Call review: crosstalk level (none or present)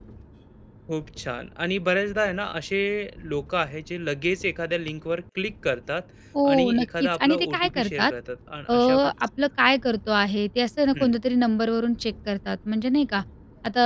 present